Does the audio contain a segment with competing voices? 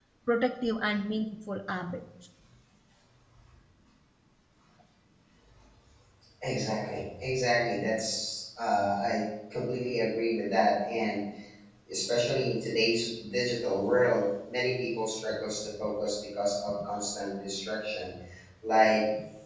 No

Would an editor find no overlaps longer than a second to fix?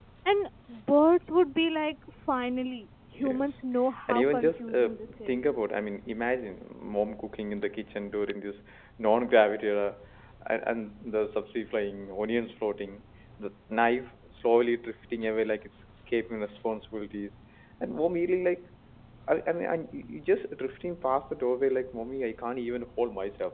No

